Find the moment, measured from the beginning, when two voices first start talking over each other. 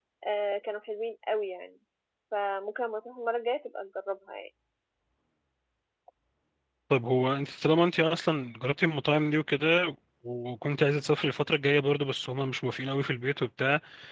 none

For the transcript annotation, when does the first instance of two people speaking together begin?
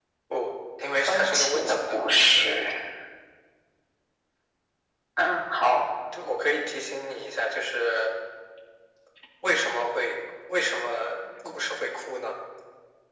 1.1 s

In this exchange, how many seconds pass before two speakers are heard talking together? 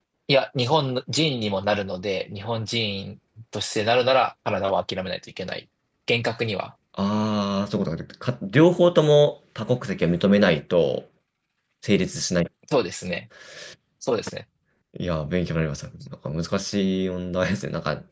none

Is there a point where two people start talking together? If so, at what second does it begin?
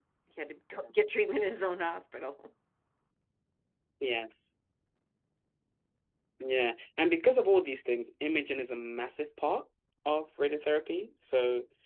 none

